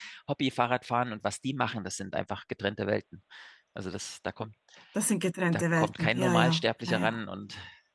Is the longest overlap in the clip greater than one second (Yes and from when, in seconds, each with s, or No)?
Yes, from 5.5 s